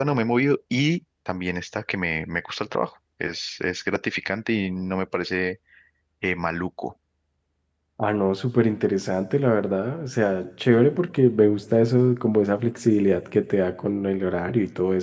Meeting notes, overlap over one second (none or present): none